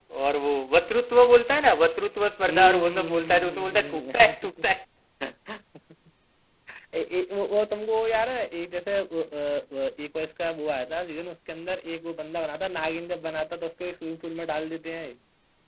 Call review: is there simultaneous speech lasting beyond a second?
Yes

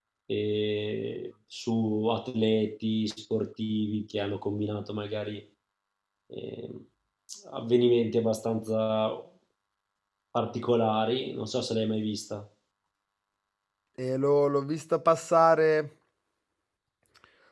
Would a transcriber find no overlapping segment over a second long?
Yes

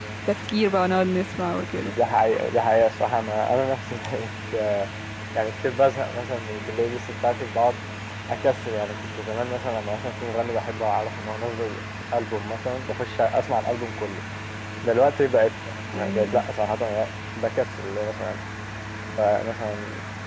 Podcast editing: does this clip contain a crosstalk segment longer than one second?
No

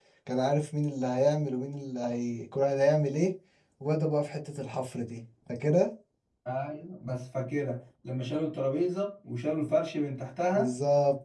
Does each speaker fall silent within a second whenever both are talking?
Yes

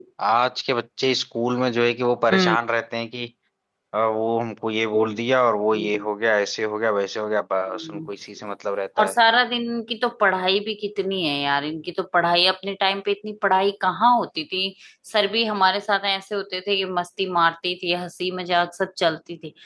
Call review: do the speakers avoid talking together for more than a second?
Yes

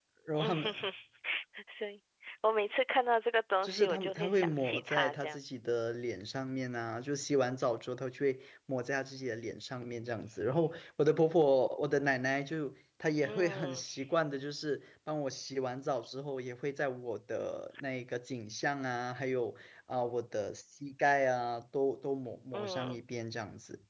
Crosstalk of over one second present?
Yes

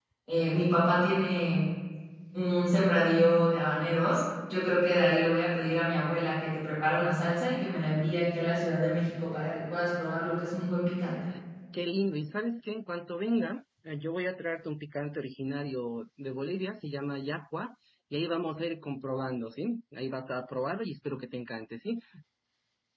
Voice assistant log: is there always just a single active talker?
Yes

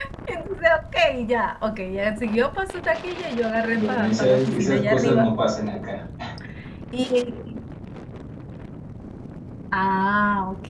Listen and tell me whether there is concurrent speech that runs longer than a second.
Yes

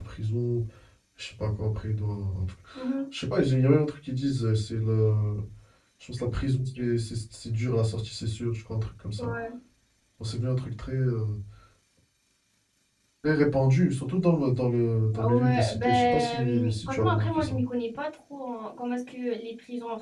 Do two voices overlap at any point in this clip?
Yes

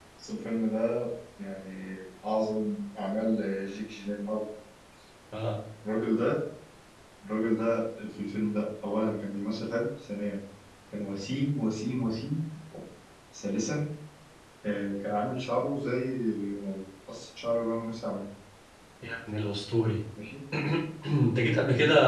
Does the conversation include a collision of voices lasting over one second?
No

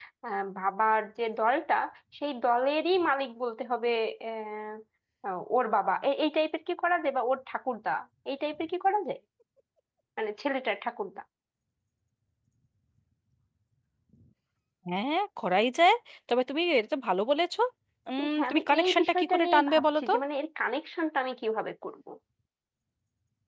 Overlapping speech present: Yes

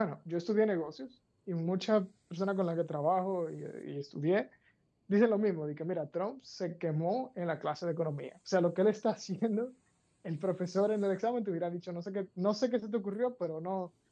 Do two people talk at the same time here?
No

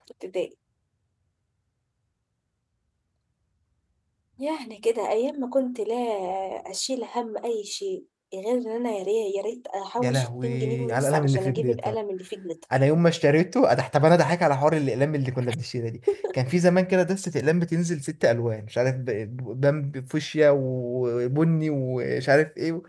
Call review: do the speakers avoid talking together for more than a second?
No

